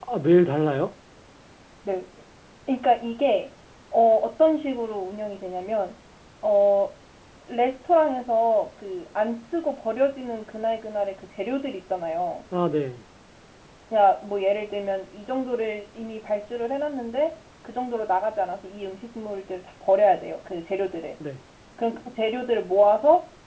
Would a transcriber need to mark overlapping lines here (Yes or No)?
No